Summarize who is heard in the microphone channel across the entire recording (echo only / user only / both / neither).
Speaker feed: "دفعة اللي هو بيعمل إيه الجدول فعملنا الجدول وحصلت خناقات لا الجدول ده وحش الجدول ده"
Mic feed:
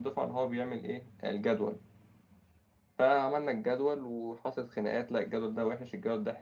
echo only